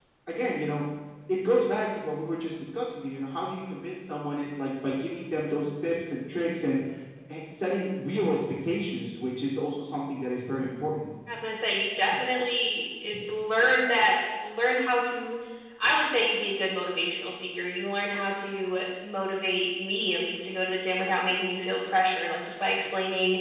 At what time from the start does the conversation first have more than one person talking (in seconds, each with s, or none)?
none